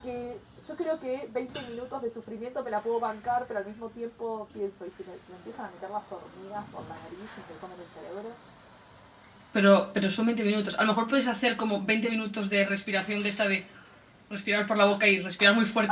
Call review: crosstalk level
none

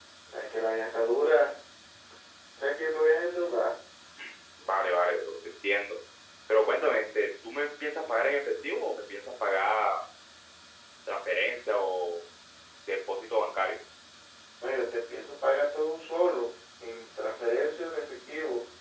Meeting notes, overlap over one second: none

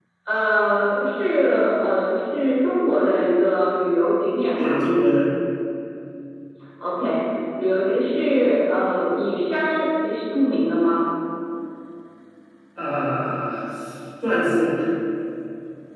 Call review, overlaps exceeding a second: none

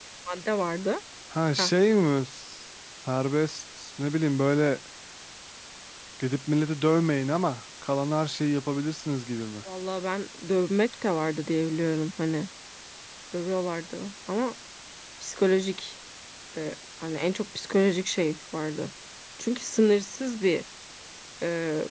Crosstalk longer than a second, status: none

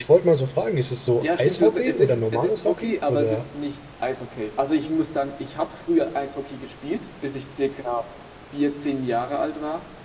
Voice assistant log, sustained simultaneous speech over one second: present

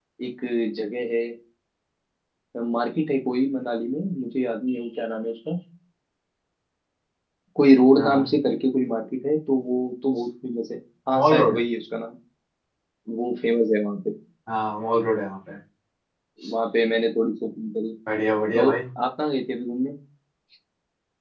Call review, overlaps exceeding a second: none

